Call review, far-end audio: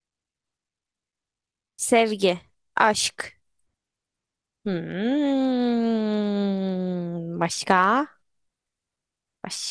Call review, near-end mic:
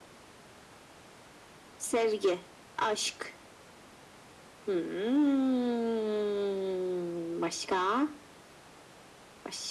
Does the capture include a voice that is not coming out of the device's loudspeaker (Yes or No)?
No